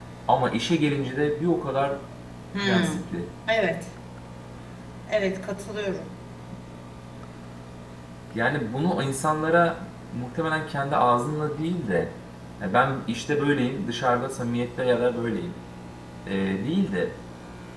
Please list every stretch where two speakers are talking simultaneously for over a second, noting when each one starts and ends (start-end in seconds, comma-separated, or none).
none